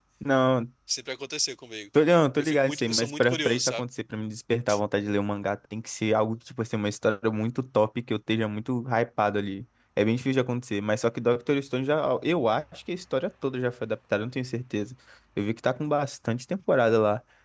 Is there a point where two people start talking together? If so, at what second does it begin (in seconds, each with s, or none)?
2.4 s